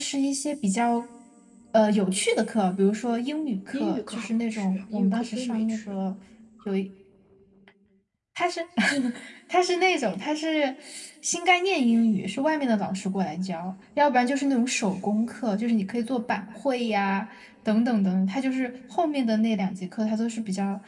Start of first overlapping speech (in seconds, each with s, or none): 3.7 s